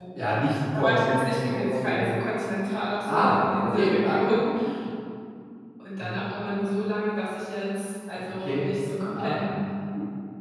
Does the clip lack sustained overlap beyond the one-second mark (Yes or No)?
No